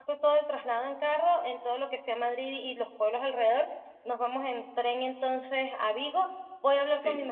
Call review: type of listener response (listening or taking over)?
listening